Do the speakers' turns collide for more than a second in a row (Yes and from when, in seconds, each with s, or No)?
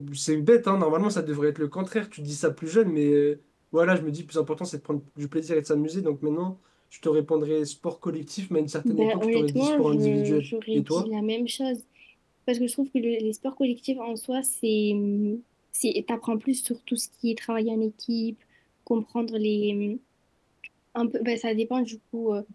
Yes, from 8.8 s